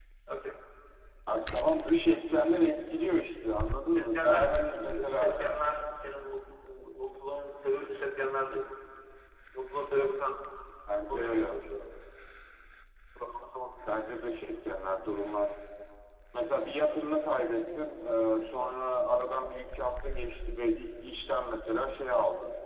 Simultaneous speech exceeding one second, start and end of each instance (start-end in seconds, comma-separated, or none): 3.9-5.3